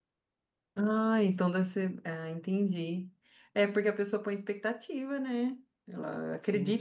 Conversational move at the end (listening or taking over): taking over